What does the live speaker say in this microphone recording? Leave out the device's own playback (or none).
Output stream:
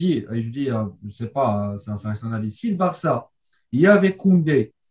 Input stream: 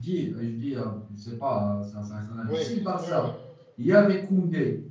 Oui, oui, oui, oui.